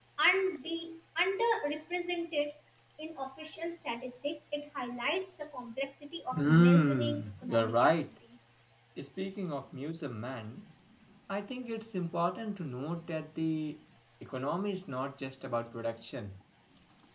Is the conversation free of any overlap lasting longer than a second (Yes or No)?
No